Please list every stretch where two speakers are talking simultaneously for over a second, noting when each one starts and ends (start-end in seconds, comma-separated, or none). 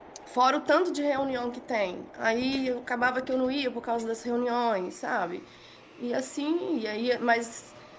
none